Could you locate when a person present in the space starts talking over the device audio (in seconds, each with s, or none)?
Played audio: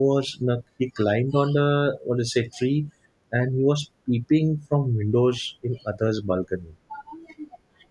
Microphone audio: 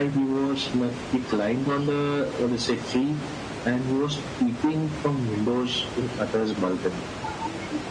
none